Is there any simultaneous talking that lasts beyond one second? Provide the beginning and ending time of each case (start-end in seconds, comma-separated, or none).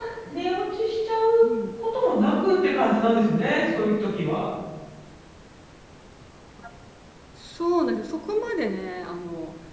none